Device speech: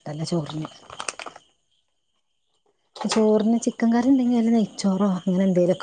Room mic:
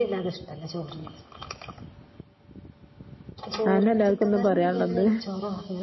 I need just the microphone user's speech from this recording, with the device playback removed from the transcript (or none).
അതന്നെ എല്ലാർക്കും ഇന്നും പറയാനുള്ളത്.